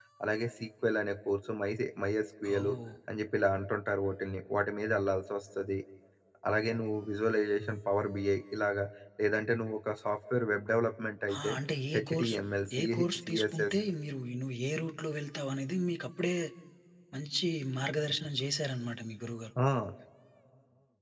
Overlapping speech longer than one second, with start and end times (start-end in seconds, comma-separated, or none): none